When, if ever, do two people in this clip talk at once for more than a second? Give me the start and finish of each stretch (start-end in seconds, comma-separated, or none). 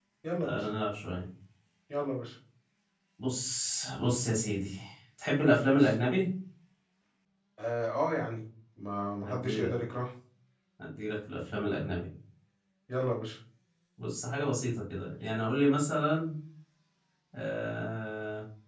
none